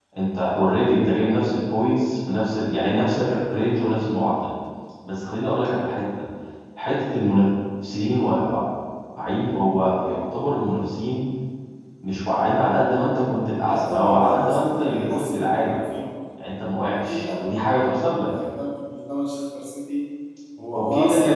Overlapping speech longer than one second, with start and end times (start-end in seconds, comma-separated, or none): 13.6-15.7